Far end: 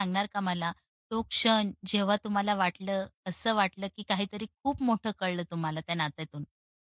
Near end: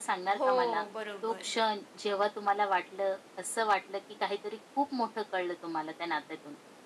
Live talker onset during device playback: 0.4 s

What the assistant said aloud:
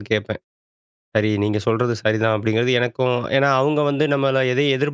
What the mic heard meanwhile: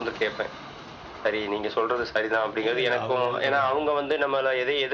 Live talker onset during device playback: 2.7 s

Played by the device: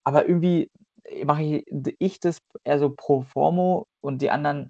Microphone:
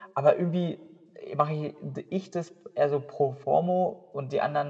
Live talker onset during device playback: none

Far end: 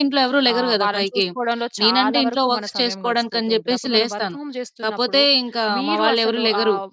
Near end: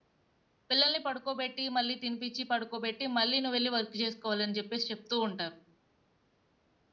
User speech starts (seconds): 0.7 s

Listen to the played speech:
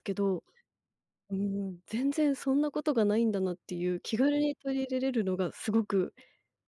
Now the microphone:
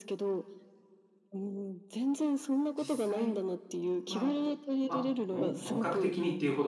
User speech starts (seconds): 2.8 s

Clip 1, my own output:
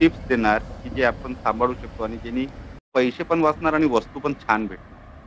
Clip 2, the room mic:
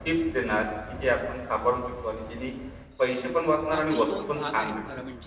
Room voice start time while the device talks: 3.7 s

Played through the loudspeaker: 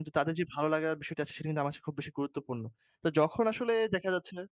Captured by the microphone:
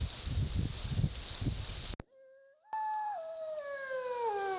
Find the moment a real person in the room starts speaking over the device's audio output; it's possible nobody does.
none

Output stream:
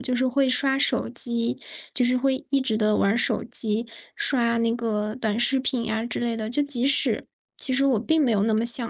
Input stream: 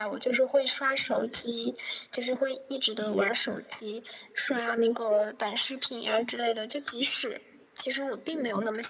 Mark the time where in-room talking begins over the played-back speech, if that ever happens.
none

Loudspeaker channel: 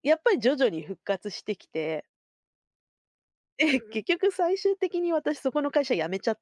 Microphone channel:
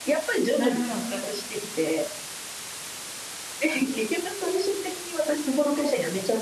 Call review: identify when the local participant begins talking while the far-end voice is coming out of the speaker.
0.5 s

